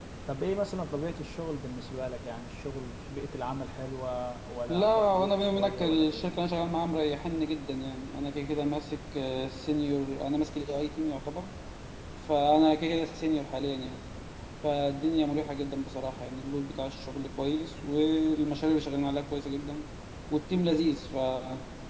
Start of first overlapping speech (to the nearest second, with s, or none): 5 s